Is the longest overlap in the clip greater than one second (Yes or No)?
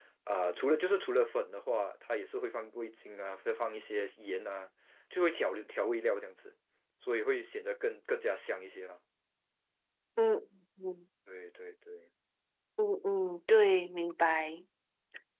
No